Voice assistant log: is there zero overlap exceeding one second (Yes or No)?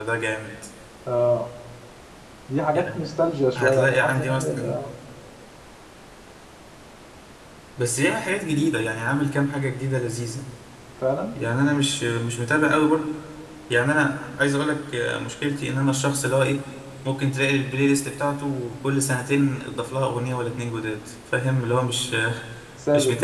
No